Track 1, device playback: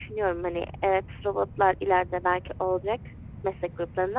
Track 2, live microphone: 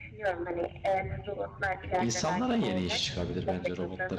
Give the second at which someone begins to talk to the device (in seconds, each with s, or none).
2.0 s